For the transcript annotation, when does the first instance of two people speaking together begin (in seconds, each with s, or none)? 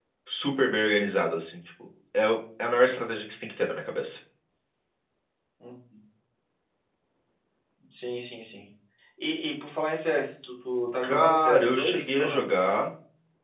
11.0 s